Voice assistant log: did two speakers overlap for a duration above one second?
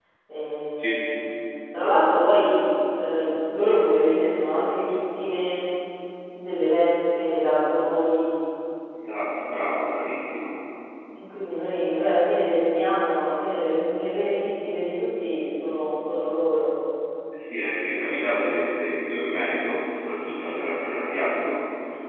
No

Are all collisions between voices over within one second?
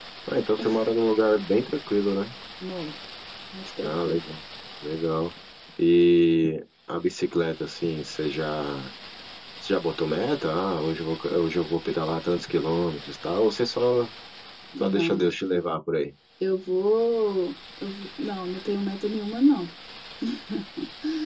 Yes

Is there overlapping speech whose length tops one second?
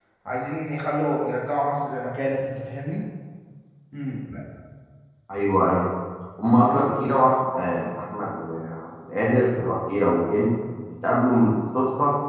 No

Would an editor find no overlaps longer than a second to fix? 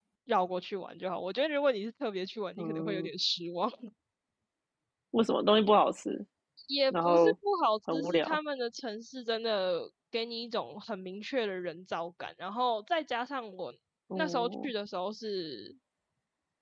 Yes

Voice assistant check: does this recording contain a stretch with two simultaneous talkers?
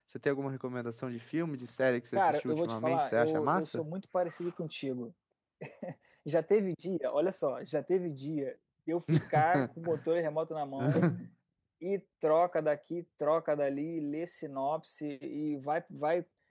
Yes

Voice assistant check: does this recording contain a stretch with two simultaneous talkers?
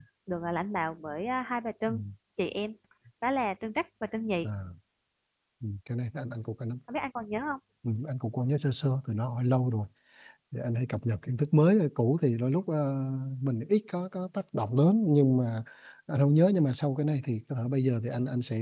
No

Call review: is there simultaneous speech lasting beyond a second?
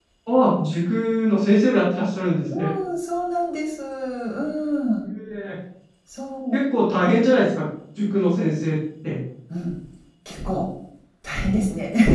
No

